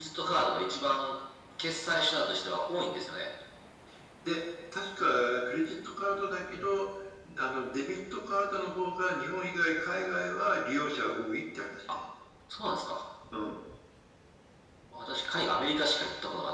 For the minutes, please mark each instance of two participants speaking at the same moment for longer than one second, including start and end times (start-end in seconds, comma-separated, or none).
none